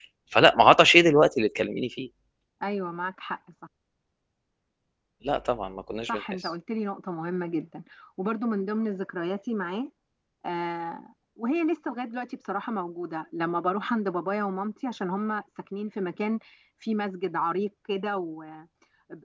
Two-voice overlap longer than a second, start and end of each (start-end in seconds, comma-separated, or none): none